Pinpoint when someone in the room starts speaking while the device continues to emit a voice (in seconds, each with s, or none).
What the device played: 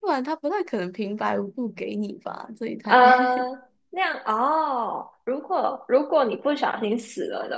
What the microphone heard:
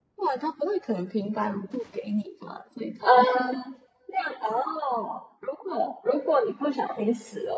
none